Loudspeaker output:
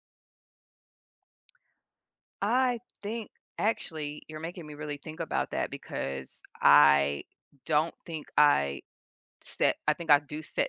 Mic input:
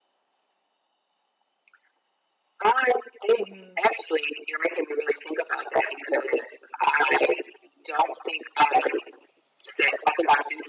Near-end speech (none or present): present